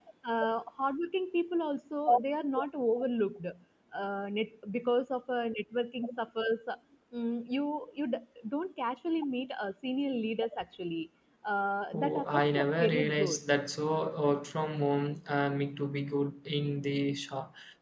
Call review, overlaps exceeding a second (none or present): present